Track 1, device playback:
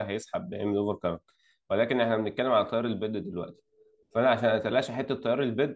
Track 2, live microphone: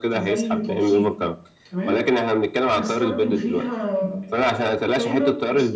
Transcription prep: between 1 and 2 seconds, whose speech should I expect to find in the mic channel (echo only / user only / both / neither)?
both